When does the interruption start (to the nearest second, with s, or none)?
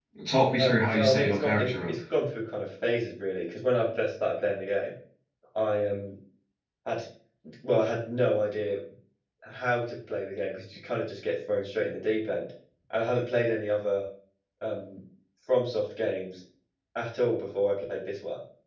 1 s